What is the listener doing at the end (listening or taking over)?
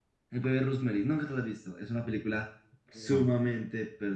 listening